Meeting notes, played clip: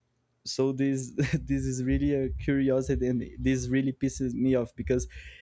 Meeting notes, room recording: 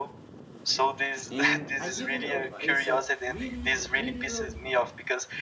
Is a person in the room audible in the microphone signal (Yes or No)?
Yes